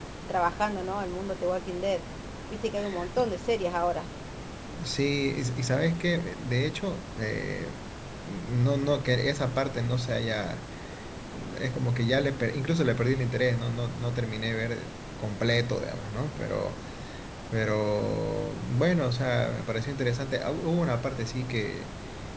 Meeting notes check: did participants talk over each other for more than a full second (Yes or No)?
No